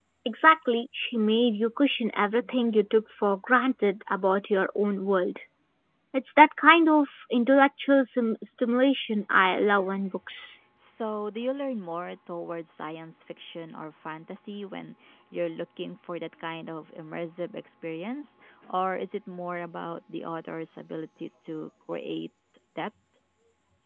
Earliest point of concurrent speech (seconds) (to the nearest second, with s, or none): none